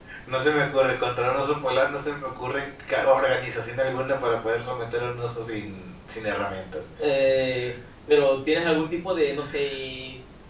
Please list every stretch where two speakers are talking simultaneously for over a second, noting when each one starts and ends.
none

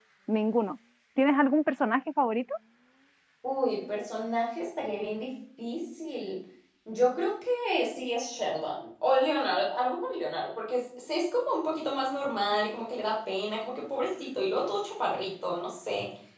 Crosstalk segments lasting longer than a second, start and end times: none

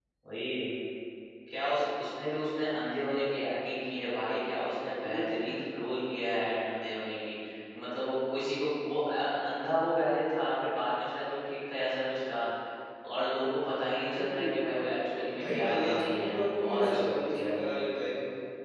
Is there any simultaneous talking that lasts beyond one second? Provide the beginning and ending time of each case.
15.4-17.8

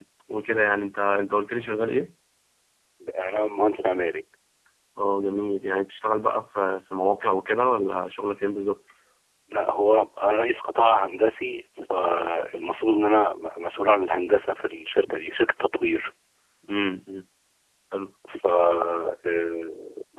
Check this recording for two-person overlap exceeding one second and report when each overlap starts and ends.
none

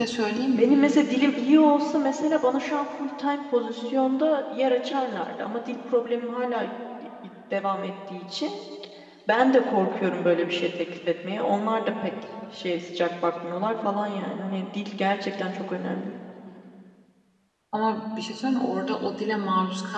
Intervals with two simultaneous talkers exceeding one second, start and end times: none

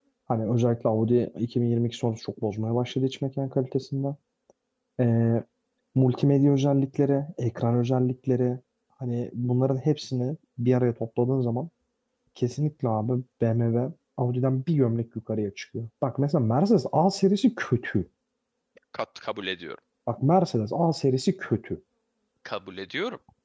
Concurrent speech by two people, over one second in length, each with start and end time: none

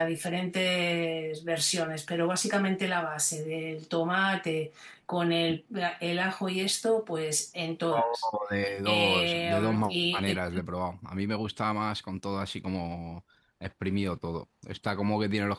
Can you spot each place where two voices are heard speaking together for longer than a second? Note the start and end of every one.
8.8-10.4

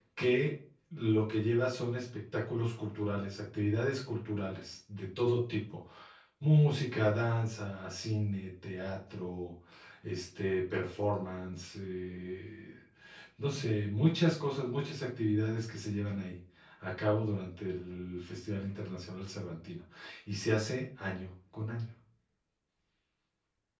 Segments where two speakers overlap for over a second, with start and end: none

